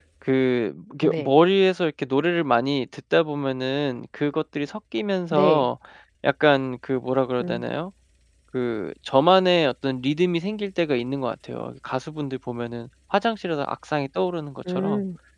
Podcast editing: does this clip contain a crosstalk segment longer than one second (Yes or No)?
No